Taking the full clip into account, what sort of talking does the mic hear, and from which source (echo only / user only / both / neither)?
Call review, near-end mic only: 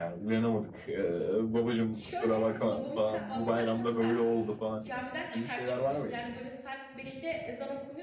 both